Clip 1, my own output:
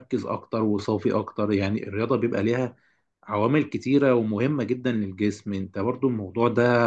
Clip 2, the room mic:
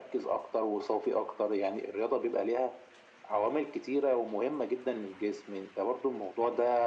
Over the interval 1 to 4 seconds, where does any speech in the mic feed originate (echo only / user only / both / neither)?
echo only